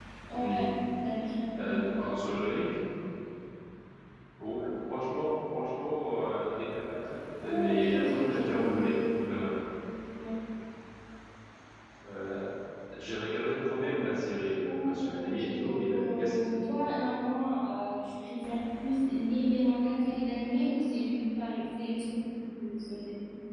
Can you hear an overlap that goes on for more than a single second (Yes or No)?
Yes